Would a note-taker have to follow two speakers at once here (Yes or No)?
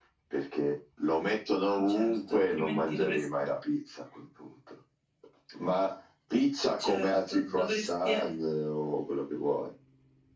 Yes